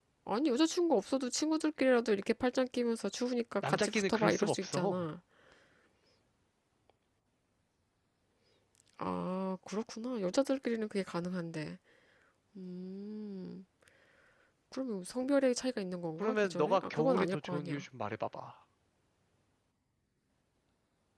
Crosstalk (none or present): present